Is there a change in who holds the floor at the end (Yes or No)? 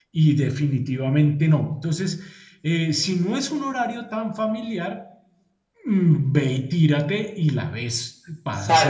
Yes